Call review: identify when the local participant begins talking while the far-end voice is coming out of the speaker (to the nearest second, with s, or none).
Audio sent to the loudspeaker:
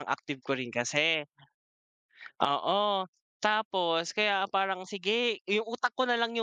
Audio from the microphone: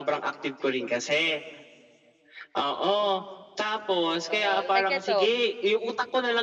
4 s